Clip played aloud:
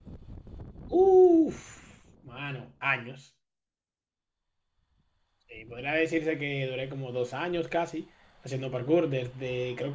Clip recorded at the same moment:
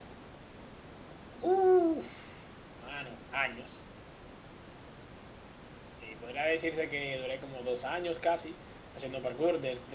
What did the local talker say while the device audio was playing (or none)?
none